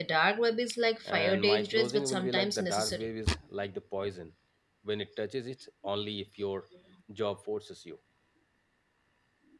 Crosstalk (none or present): present